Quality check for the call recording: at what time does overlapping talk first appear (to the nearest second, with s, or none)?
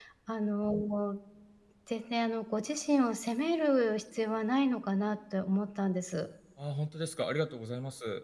none